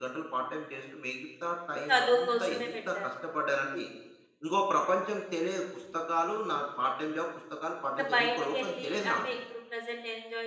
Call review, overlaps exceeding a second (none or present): present